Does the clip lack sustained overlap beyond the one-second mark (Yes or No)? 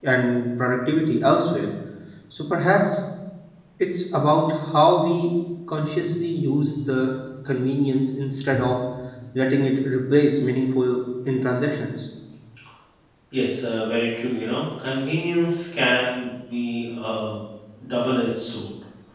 Yes